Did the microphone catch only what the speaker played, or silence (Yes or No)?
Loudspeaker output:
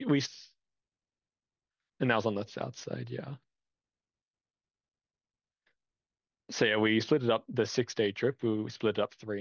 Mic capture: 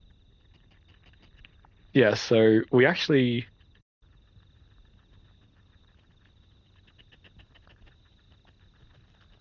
No